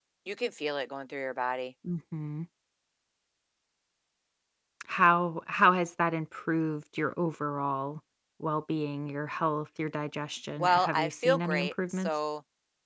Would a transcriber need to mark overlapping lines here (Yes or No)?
Yes